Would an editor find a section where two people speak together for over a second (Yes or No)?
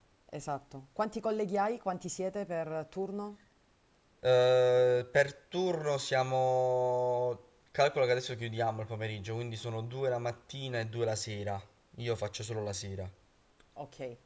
No